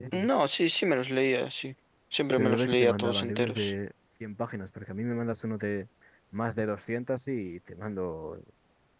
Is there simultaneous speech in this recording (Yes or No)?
Yes